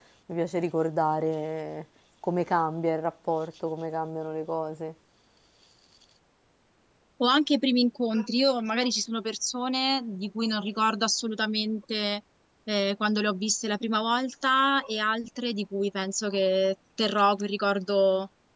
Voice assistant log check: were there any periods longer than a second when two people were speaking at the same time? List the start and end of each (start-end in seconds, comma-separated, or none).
none